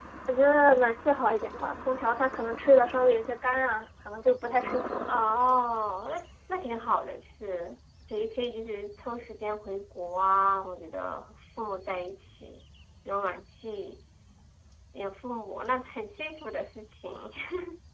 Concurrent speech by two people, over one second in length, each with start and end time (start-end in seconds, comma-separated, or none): none